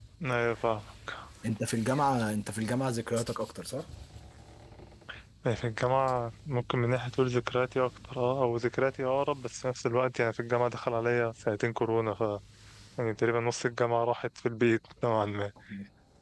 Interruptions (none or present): none